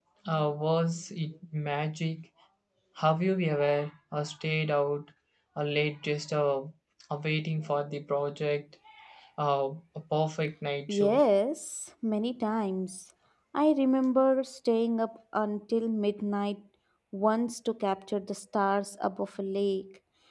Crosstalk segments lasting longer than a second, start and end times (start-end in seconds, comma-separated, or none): none